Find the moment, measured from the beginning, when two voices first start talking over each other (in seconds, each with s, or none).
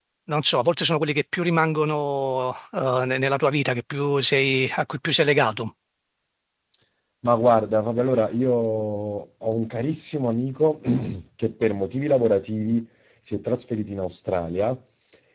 none